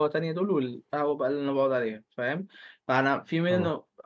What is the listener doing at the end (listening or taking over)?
listening